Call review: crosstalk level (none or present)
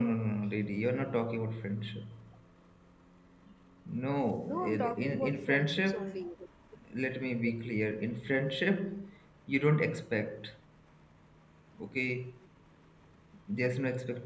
present